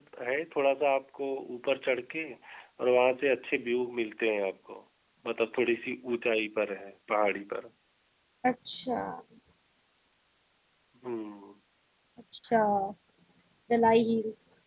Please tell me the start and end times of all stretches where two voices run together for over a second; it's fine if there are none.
none

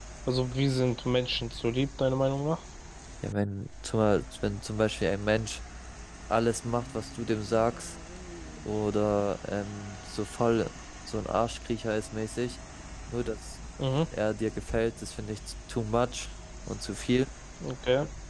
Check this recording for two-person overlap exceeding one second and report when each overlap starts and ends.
none

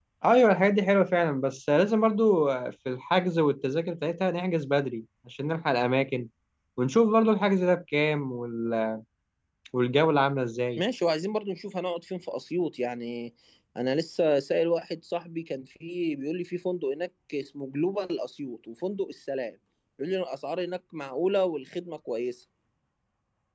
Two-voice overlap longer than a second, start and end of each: none

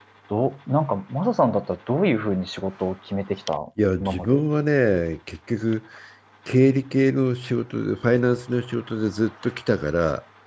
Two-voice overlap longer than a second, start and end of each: none

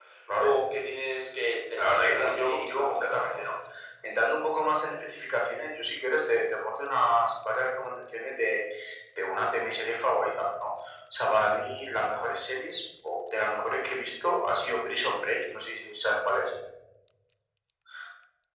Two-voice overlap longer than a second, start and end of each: 1.8-3.5

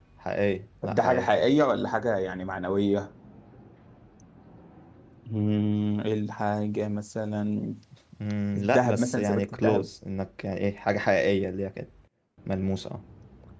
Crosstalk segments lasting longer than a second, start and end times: 8.6-9.9

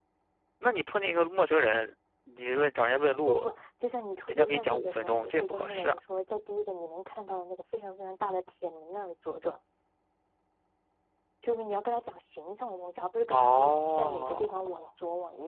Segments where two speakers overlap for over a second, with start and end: 4.3-6.0, 13.3-14.9

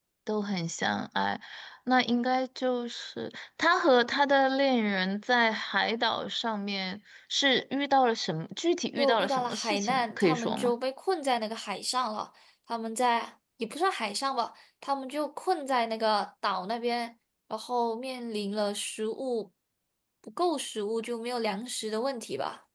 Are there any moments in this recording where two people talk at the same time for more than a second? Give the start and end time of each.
9.0-10.7

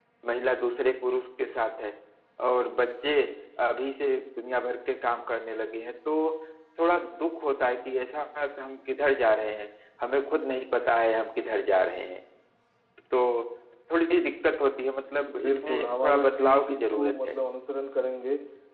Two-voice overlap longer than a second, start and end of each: 15.4-17.3

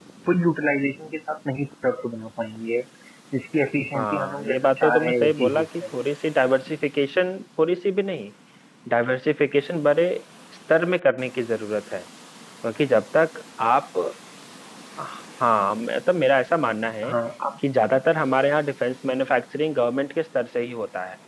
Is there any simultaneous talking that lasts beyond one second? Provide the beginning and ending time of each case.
3.9-5.7

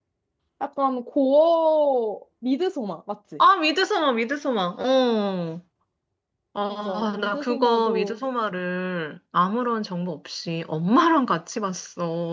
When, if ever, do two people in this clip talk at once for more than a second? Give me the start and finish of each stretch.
6.7-8.2

